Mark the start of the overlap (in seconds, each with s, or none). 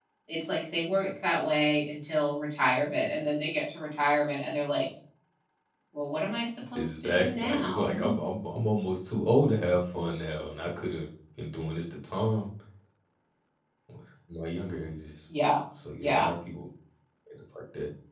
6.8 s